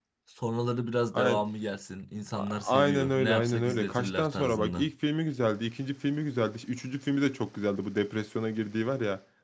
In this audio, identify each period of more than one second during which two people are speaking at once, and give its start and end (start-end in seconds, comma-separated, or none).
2.3-4.9